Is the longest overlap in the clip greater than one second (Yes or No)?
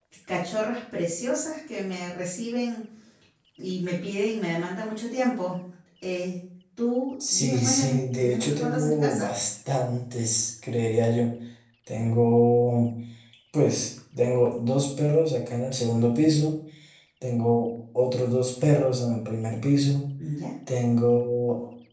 Yes